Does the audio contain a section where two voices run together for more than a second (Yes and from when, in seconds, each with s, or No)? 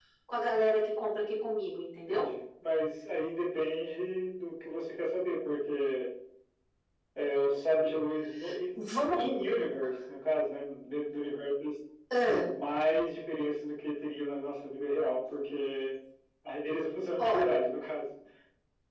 No